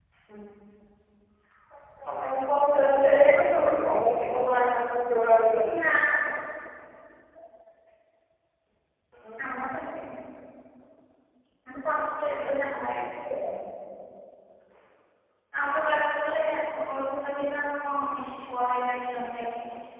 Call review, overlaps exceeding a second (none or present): none